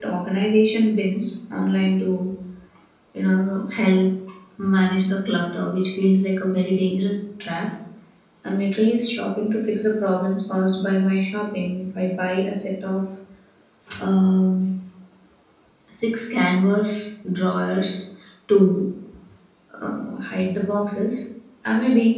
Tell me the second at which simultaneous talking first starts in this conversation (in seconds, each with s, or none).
none